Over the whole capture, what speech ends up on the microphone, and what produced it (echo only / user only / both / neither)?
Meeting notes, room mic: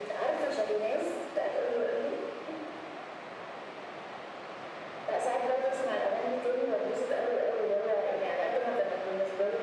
echo only